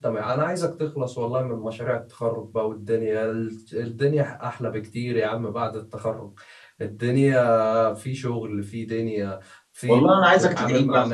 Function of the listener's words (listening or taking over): taking over